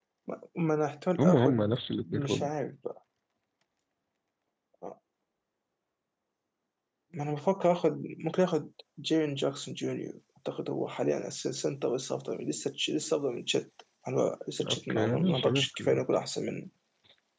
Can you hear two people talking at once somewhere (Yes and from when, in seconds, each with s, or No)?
Yes, from 1.2 s